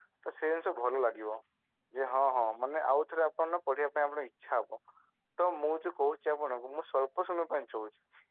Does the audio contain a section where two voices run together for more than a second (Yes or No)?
No